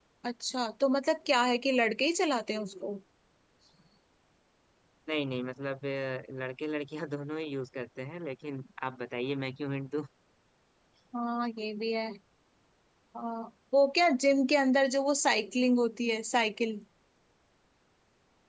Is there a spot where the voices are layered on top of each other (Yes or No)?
No